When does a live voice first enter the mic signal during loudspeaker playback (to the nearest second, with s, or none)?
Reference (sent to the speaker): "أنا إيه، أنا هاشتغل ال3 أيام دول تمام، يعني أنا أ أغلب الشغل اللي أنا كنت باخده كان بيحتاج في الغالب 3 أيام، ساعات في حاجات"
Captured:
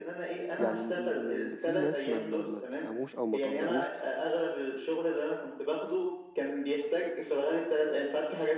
1 s